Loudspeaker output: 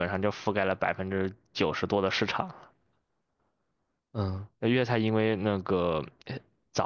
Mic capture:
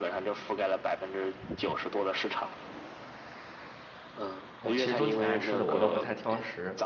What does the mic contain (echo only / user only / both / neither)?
both